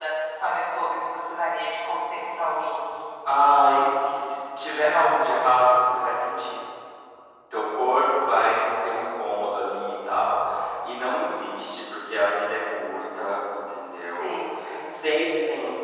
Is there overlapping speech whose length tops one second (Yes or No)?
No